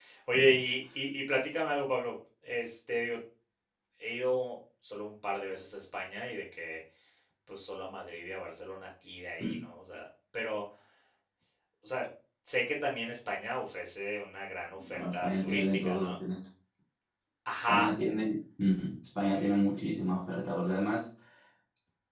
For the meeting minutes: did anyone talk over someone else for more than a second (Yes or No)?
Yes